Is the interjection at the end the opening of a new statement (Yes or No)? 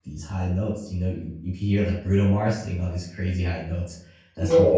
No